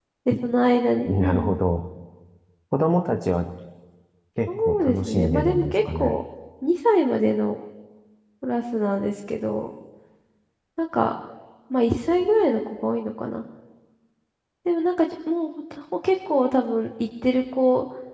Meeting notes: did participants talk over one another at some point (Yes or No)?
Yes